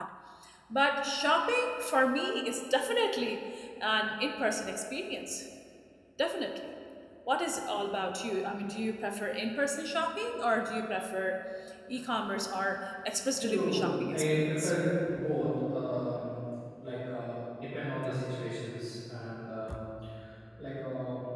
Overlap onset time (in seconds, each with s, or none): 13.4 s